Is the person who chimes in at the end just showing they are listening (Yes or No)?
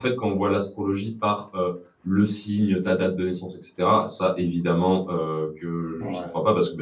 Yes